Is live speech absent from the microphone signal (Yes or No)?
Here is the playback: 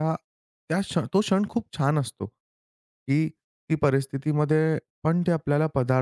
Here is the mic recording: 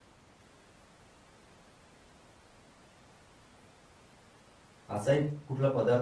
No